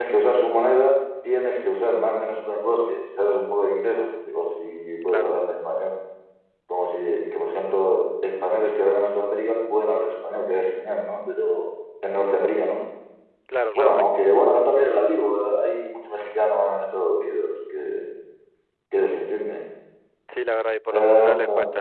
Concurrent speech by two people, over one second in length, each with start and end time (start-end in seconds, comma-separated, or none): none